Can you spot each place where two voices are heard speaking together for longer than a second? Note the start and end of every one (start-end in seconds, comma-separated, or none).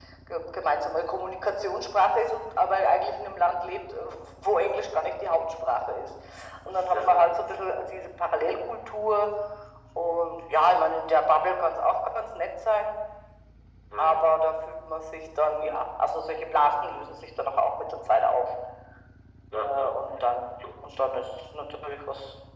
none